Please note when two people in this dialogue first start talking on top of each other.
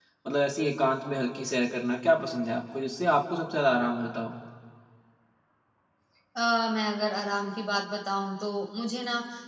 none

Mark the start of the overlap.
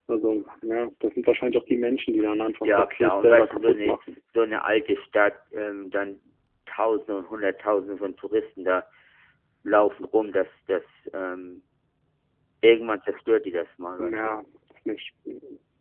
2.6 s

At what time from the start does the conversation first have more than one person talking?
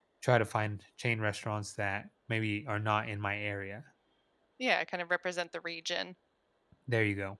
none

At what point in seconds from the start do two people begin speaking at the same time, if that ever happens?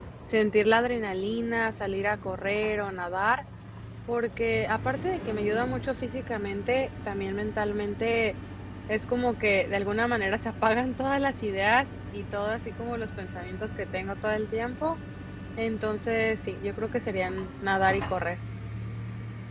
none

